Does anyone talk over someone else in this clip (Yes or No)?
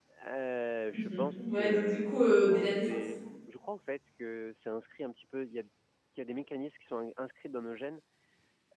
Yes